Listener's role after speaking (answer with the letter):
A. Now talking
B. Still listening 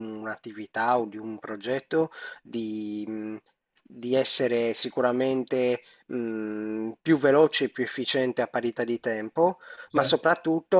B